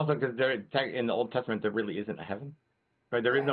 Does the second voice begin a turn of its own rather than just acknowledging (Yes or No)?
Yes